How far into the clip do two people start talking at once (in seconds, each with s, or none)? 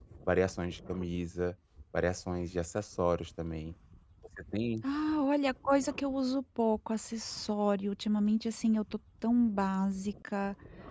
none